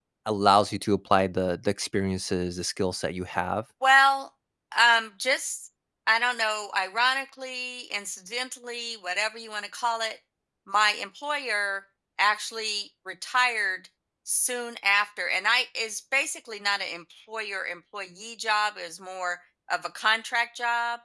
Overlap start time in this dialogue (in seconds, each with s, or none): none